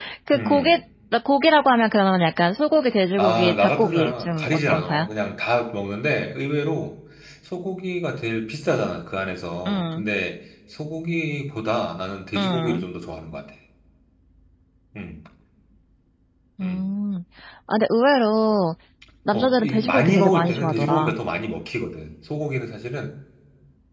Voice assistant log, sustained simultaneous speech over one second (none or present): present